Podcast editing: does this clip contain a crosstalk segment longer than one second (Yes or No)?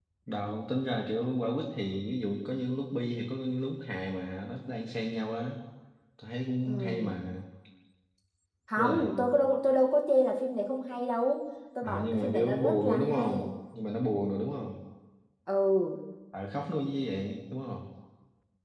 Yes